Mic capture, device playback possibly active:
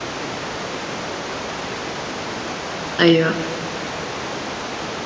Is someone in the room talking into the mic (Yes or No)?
Yes